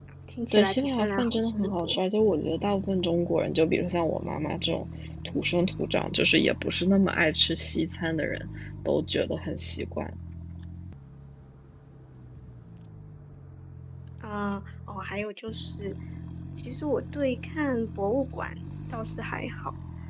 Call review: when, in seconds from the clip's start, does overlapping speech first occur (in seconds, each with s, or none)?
0.5 s